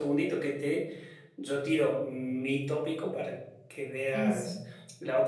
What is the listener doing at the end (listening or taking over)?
listening